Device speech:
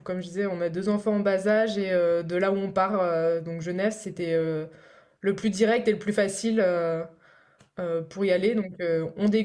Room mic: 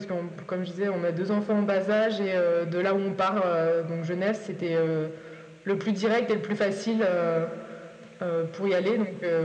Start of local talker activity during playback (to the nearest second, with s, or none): none